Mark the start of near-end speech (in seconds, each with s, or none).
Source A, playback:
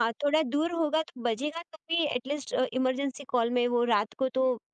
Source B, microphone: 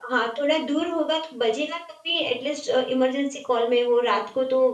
none